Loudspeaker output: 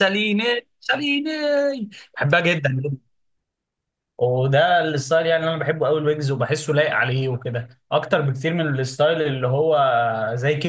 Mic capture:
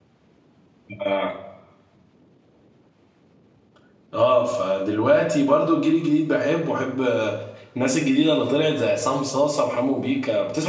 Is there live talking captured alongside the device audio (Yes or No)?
Yes